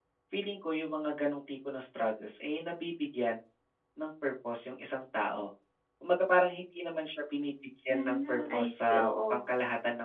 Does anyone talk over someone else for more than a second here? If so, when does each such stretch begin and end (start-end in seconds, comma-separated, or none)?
7.9-9.4